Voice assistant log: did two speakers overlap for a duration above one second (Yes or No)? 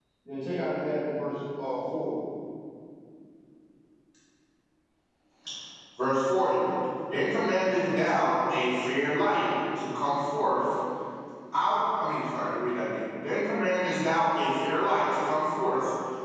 No